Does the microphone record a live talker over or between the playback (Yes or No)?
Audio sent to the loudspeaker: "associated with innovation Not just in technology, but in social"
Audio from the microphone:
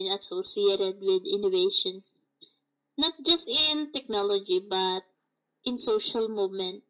No